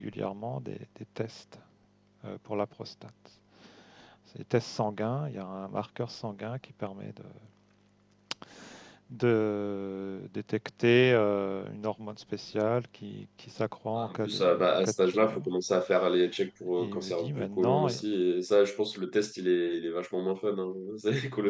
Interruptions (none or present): present